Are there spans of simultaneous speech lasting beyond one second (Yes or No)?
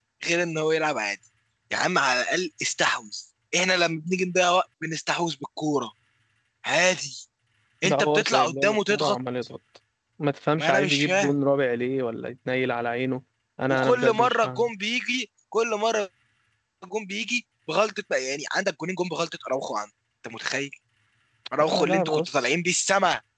Yes